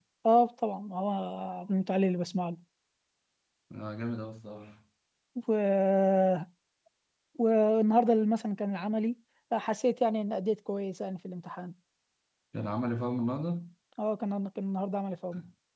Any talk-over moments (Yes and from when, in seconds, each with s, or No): No